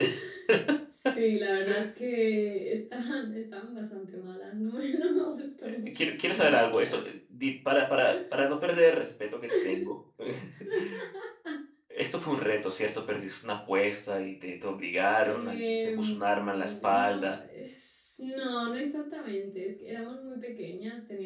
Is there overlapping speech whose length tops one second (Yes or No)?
Yes